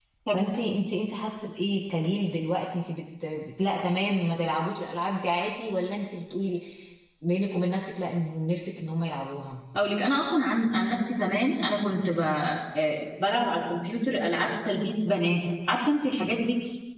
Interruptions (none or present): none